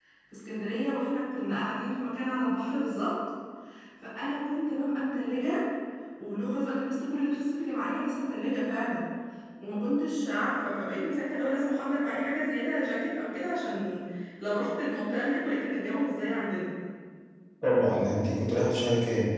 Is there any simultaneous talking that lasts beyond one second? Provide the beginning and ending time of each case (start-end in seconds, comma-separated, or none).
none